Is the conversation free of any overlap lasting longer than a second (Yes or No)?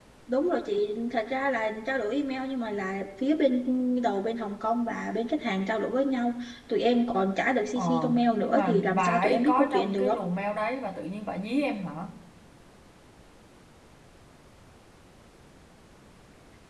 No